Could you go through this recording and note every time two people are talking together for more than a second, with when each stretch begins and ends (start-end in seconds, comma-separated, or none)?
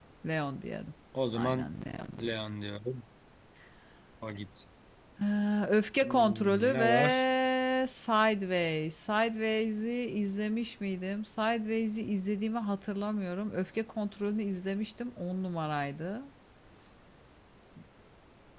6.0-7.2